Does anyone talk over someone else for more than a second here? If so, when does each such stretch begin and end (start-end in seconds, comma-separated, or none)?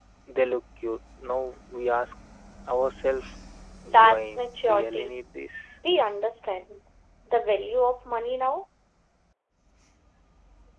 3.8-5.1